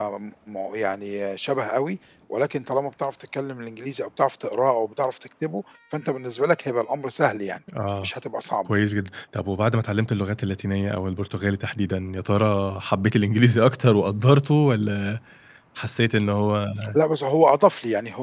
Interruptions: none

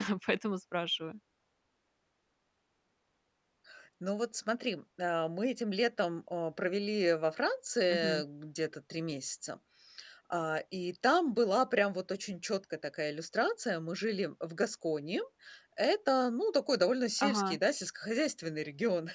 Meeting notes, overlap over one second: none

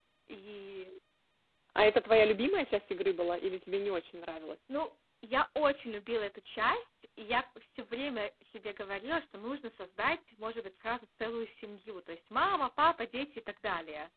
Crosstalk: none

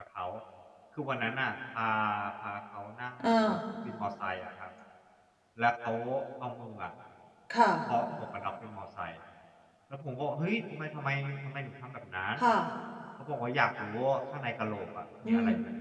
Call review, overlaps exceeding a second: none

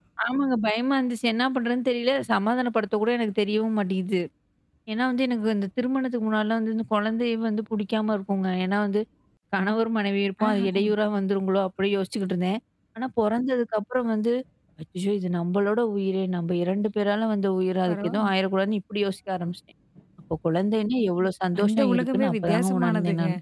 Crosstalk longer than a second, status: present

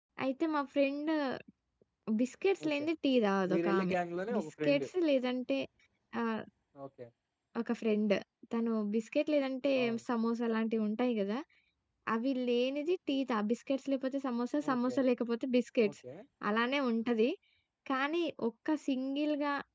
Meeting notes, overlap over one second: none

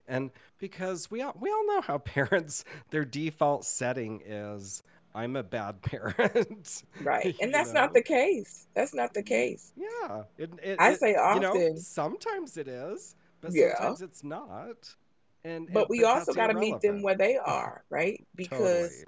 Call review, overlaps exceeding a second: present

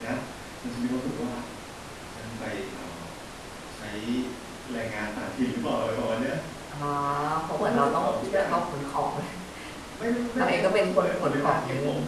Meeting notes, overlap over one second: present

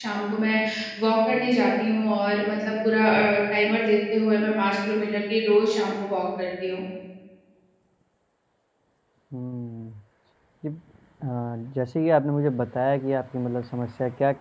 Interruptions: none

